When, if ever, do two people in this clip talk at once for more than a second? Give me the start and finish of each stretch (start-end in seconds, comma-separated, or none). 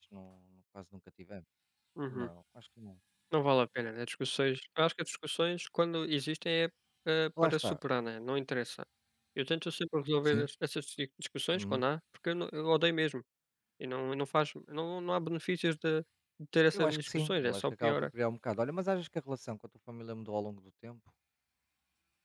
16.7-18.1